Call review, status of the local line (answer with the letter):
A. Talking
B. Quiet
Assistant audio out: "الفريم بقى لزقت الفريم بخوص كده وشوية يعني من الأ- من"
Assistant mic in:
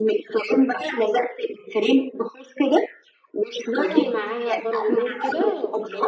A